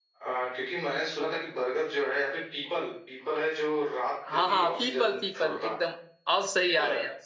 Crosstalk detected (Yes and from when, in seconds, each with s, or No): Yes, from 4.3 s